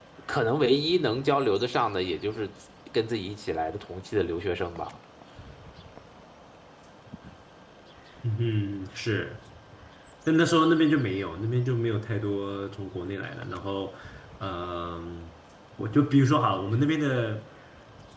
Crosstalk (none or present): none